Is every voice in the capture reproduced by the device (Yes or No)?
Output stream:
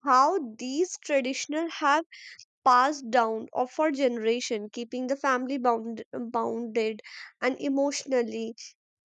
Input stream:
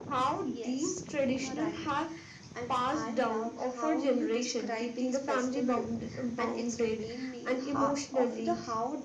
No